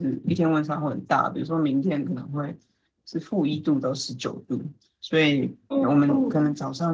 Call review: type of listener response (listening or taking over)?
listening